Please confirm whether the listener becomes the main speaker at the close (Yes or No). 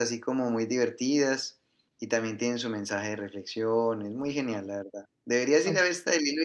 No